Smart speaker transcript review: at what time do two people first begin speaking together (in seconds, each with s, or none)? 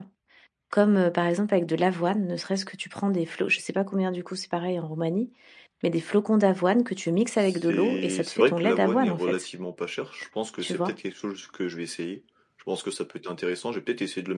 7.4 s